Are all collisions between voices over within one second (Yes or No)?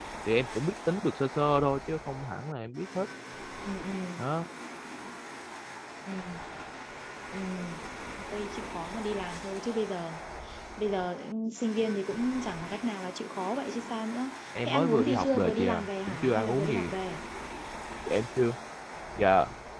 No